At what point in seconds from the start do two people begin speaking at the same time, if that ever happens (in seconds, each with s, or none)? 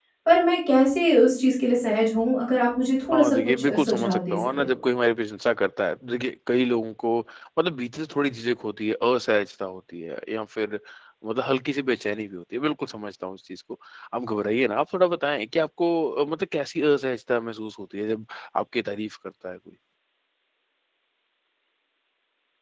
3.1 s